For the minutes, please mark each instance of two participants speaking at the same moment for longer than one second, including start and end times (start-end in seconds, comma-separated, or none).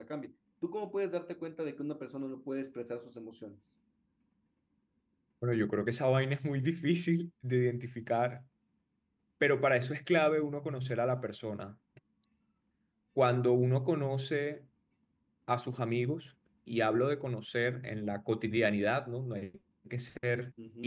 none